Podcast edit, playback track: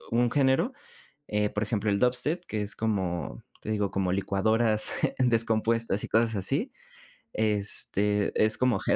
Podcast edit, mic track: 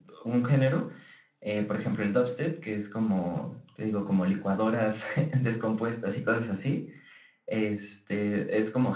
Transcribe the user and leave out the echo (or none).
none